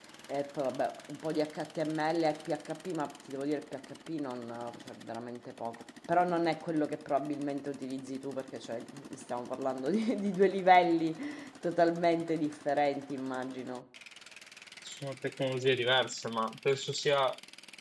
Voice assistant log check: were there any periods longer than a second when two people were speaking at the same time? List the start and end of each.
none

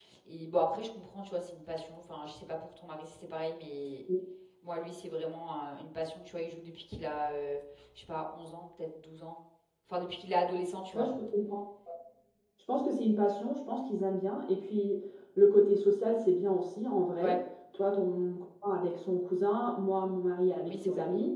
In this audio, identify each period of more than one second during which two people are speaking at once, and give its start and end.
none

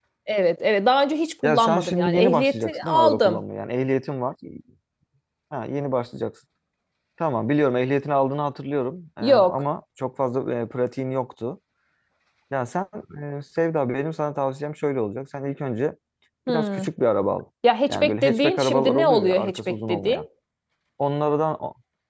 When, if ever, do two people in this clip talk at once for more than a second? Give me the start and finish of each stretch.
1.4-3.4, 17.9-20.2

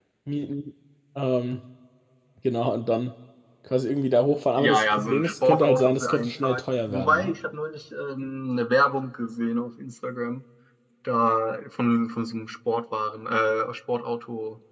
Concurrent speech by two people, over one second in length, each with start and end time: 4.6-7.3

